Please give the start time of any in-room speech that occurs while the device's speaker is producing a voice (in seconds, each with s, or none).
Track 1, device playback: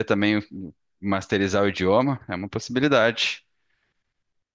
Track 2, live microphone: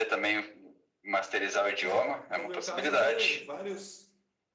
1.8 s